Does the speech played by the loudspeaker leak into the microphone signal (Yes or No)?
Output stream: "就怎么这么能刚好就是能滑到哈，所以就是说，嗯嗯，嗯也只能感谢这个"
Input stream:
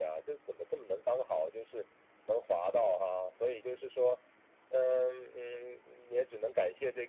Yes